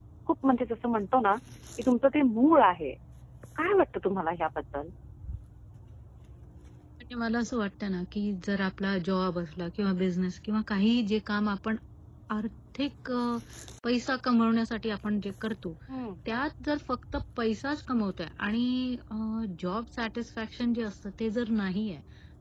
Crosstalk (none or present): none